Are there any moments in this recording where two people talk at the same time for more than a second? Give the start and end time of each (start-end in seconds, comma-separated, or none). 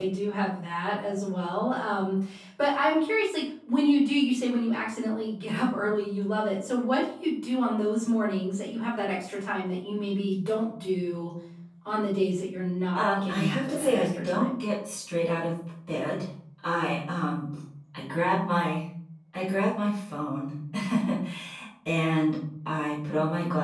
12.9-14.5